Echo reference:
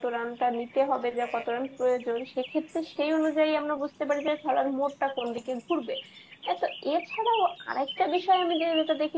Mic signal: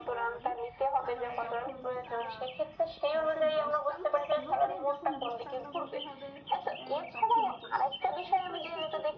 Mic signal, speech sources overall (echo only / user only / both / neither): both